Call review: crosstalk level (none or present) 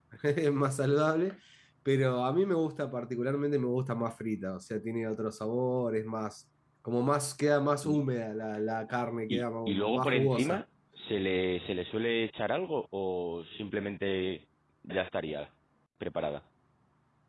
present